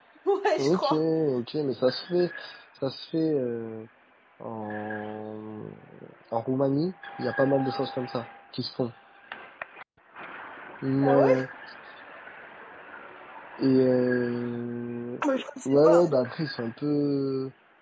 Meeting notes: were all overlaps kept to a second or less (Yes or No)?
Yes